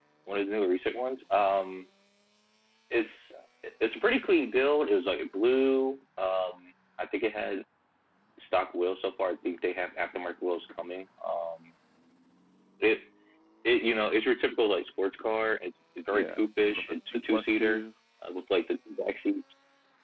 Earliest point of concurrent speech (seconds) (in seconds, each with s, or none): 16.1 s